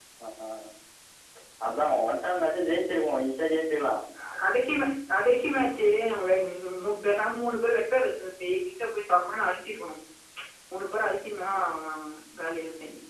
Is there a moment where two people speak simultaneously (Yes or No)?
No